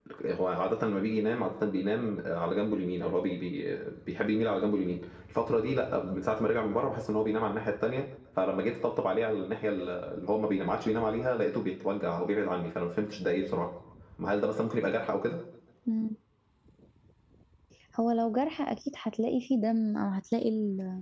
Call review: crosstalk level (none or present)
none